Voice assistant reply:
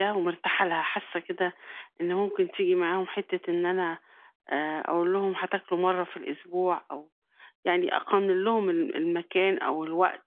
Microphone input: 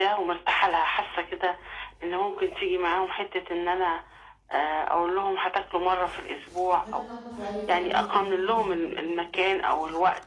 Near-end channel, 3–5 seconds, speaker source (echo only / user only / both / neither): echo only